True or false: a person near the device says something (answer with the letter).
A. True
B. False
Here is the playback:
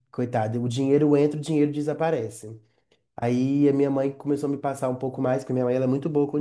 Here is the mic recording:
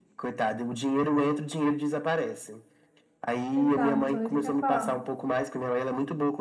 A